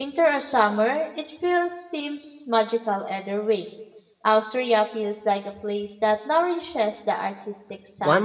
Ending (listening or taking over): taking over